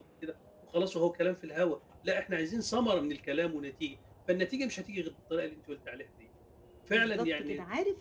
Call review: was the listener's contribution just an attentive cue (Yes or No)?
No